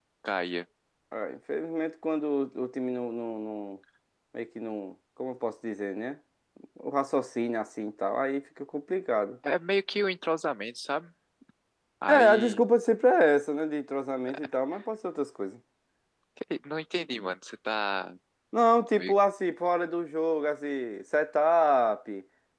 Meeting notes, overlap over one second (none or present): none